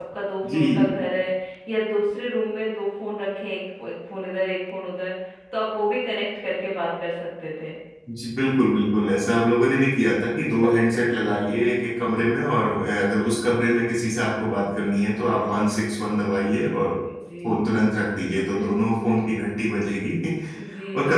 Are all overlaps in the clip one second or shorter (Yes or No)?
Yes